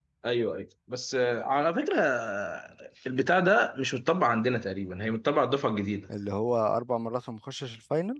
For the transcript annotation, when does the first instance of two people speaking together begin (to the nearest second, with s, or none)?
none